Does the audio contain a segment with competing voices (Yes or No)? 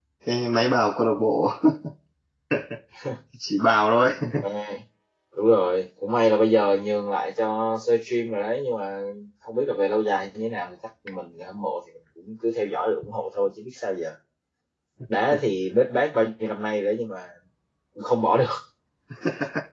No